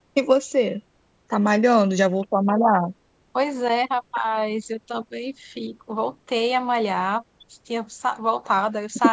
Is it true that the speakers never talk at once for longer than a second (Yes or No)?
Yes